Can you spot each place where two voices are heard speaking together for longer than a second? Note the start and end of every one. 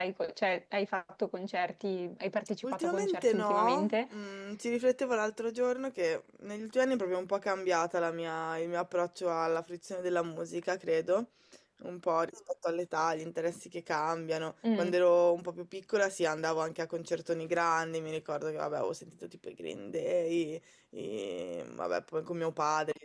2.6-4.0

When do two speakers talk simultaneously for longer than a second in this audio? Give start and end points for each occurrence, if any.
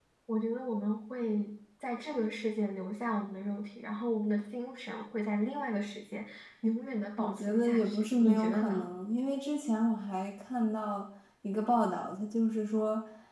7.2-8.9

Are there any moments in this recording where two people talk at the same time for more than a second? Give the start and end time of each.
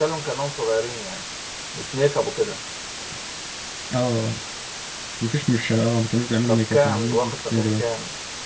6.5-7.8

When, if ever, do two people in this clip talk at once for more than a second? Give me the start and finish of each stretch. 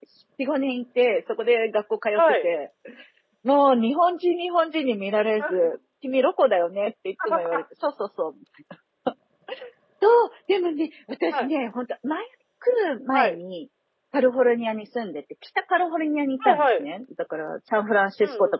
none

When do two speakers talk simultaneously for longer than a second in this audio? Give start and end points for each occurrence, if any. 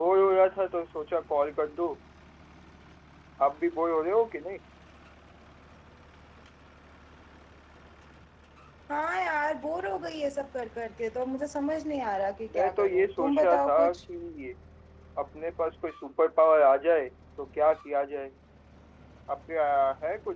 12.5-14.0

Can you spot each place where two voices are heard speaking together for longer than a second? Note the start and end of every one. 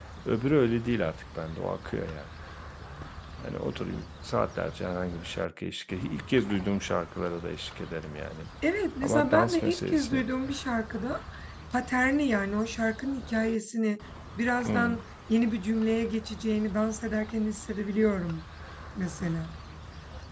9.0-10.5

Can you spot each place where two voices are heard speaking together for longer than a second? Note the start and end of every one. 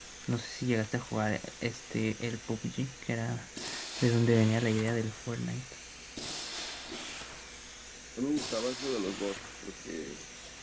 none

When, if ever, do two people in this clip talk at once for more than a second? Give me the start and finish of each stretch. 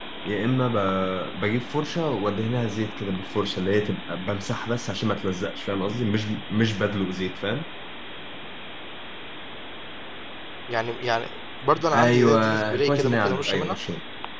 11.9-13.8

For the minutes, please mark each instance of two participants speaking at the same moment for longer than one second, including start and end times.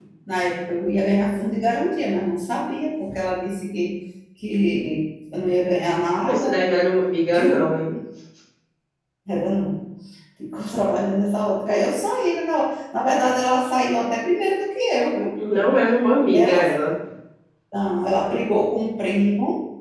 none

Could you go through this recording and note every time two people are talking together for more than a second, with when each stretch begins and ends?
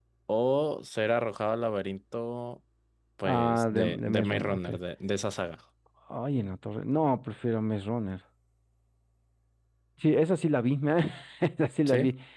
3.2-4.7

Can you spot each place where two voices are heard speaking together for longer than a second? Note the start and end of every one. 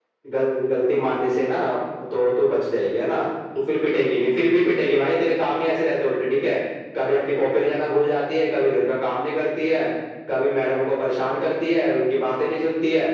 none

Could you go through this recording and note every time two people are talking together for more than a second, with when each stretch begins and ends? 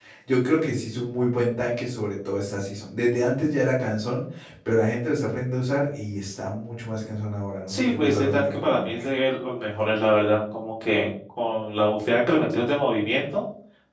7.7-9.1

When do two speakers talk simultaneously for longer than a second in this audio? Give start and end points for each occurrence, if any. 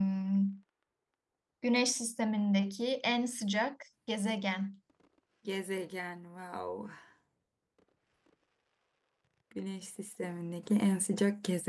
none

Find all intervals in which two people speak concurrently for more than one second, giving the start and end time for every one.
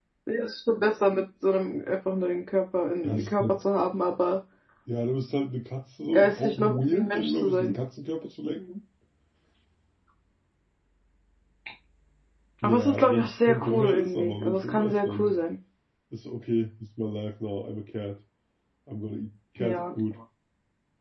6.1-7.7, 12.6-15.3

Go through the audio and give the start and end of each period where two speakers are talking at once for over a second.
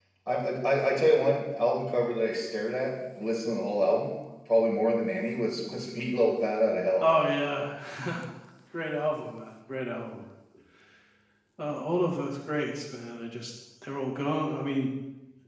none

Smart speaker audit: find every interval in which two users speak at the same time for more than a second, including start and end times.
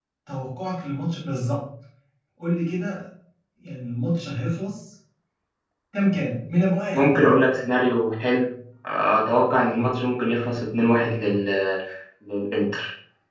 none

